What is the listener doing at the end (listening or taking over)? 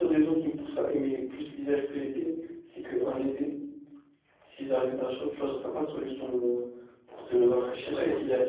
taking over